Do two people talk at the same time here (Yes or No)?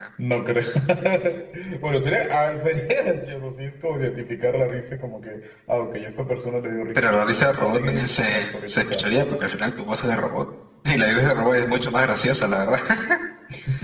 Yes